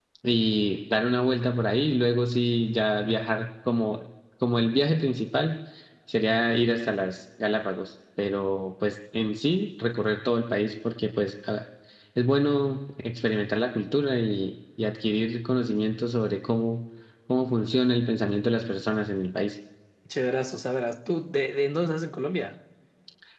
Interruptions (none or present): none